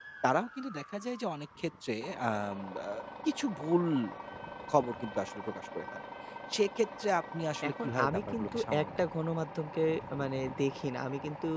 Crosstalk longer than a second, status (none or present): present